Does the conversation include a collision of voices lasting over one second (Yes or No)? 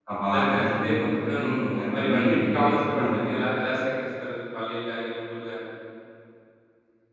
Yes